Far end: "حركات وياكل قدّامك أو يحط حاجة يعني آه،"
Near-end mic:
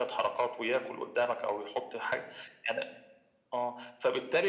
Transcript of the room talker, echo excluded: none

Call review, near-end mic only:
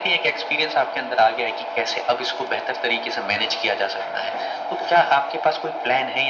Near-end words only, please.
none

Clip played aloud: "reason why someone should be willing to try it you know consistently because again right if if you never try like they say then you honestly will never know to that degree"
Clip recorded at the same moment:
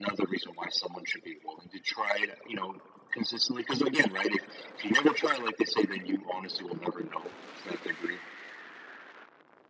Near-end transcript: none

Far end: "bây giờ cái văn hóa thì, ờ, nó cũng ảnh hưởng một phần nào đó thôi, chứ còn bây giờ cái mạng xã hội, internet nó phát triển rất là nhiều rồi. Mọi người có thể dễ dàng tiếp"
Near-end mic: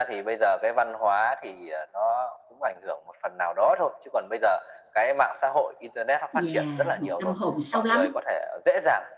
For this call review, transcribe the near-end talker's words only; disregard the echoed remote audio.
yeah, một tâm hồn sâu lắng,

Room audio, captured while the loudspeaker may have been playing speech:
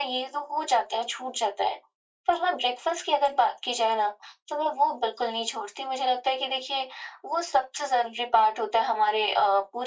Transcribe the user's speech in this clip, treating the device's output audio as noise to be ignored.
none

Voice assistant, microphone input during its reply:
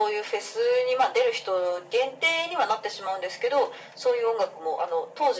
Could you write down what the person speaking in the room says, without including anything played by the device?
none

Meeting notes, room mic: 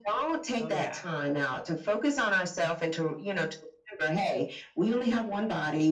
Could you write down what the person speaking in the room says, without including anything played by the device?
Oh, yeah.

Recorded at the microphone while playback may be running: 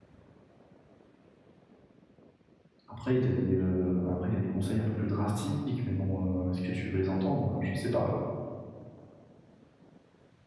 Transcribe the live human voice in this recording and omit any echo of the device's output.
Après, il y a des, heu, après, il y a des conseils un peu plus drastiques, mais bon, heu, est-ce que tu veux les entendre? Je sais pas.

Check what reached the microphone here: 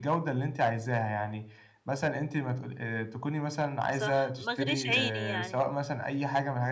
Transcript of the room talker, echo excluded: صح، ما اغريش عيني يعني،

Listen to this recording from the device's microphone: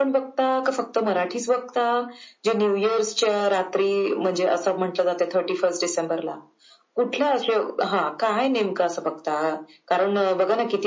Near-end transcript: none

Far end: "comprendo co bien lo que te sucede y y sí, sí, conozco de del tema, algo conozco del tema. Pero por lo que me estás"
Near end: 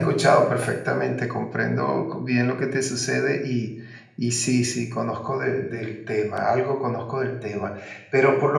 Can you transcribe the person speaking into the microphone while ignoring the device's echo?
none

